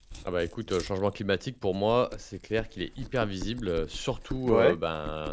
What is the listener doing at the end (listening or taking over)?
listening